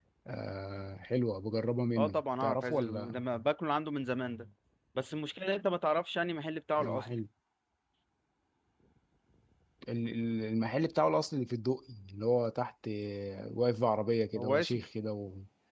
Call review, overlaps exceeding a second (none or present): present